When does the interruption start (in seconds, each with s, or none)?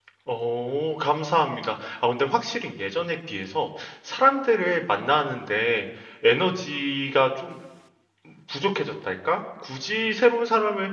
none